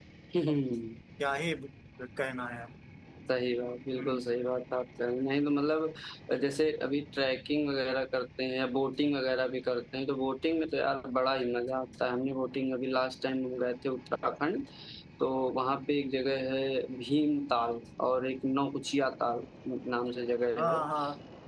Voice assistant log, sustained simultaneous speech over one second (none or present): none